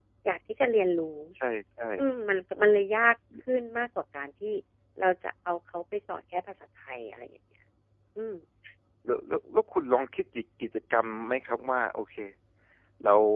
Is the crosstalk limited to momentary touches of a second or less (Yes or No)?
Yes